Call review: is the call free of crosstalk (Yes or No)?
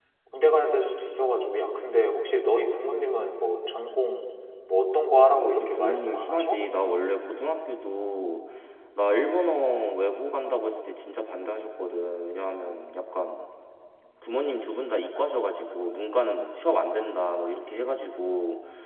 No